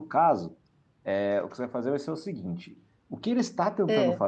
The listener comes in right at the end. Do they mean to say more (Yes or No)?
No